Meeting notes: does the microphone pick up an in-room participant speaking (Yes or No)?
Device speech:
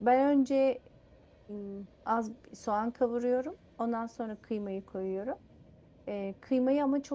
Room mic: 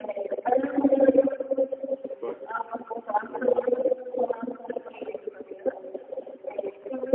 Yes